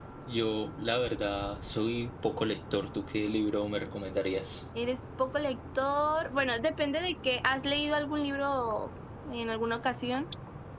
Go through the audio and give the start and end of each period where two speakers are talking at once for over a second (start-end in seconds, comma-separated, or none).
none